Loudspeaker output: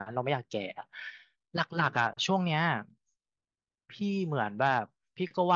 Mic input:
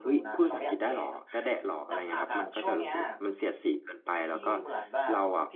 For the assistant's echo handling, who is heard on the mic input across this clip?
both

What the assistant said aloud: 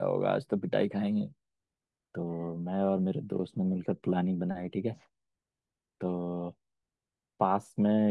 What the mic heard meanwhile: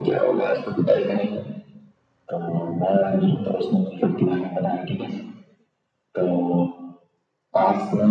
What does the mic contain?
echo only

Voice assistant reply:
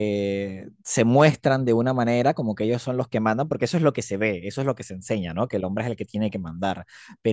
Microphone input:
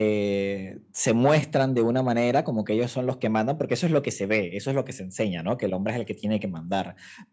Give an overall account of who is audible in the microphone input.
echo only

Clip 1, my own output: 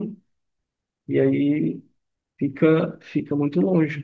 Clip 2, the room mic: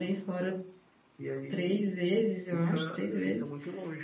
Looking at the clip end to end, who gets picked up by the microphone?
both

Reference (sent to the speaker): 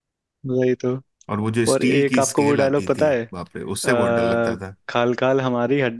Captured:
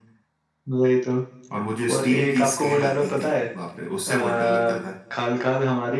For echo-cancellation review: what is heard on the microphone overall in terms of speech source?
echo only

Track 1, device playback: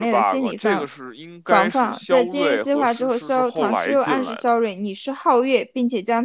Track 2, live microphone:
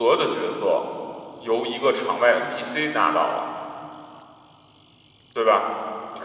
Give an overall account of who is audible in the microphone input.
user only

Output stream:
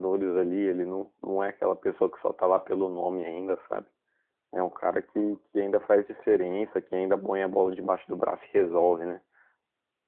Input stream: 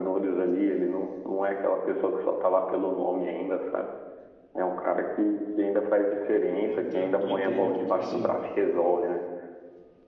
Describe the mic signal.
both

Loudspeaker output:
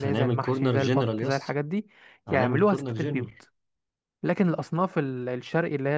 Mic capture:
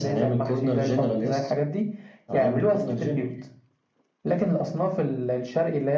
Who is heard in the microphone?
echo only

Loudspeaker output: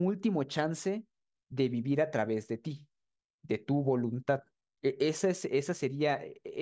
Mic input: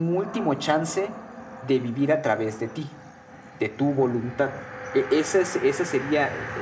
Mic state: echo only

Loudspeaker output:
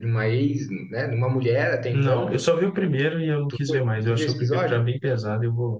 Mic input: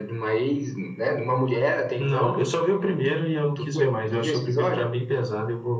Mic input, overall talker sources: echo only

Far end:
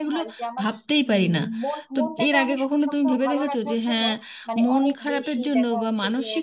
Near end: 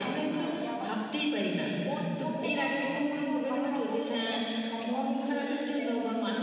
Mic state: echo only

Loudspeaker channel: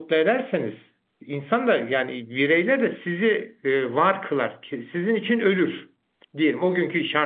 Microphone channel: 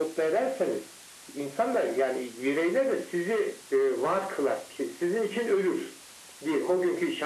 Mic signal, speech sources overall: echo only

